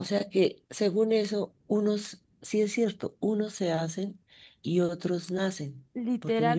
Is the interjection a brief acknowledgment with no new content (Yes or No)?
No